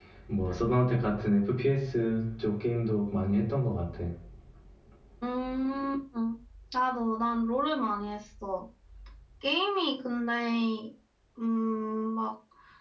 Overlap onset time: none

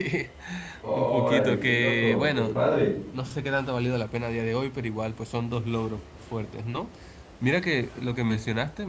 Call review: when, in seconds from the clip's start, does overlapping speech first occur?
0.9 s

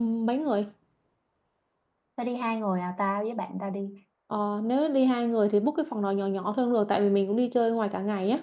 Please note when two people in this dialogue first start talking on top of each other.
none

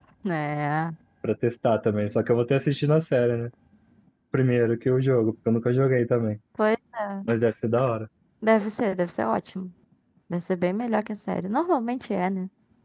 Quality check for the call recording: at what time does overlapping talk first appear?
none

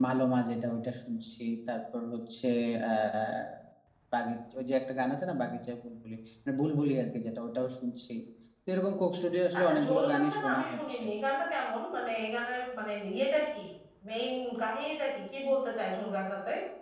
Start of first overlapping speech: 9.5 s

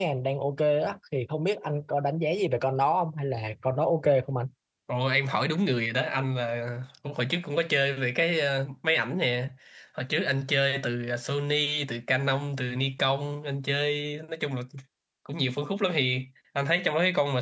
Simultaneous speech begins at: none

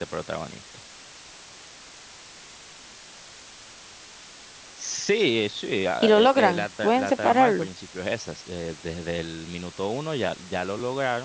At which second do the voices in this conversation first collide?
6.0 s

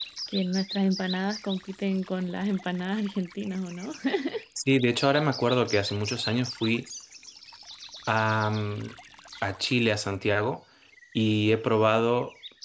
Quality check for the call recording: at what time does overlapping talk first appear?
none

